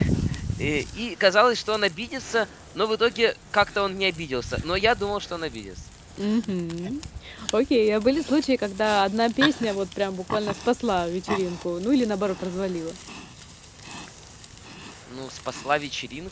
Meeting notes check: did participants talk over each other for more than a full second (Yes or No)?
No